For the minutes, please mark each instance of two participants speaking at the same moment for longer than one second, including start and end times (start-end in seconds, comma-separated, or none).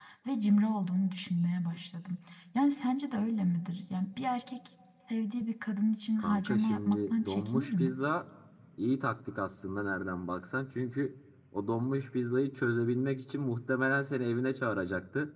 6.2-8.0